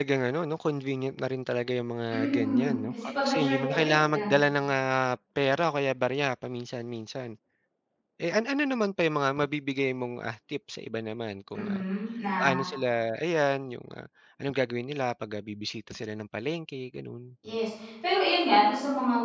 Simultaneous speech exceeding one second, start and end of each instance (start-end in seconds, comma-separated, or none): 2.1-4.3